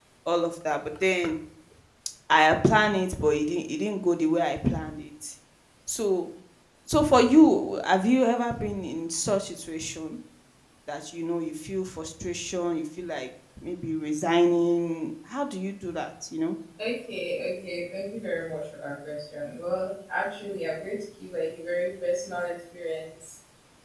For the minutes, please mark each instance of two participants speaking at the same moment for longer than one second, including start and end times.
none

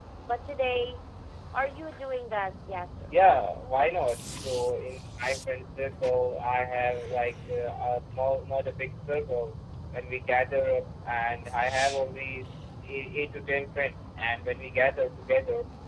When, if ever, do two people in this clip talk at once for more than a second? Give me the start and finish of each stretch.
none

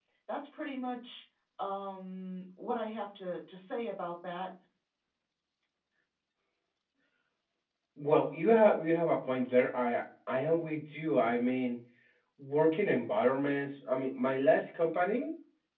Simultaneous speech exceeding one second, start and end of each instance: none

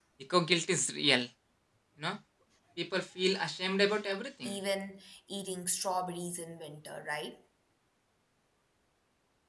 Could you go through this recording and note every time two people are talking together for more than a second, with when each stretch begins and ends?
none

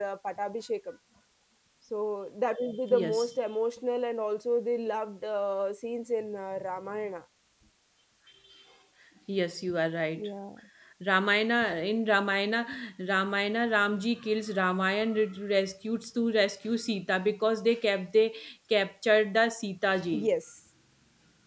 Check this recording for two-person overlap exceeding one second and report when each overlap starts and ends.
none

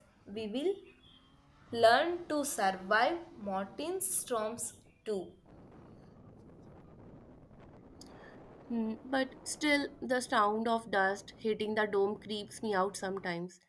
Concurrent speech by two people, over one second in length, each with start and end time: none

